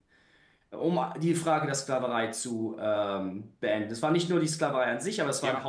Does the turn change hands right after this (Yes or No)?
Yes